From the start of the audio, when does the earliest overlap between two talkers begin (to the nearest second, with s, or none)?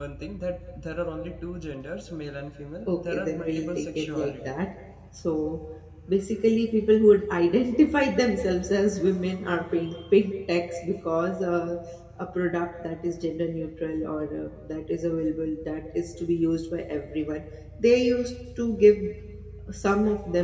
3 s